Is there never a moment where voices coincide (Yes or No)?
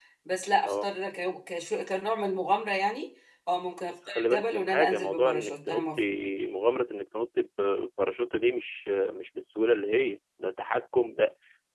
No